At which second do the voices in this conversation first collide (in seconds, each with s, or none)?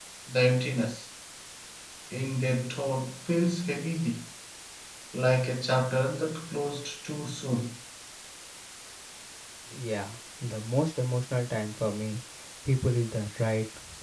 none